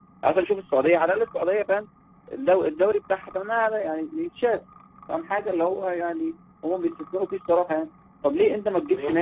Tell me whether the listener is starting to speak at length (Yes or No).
No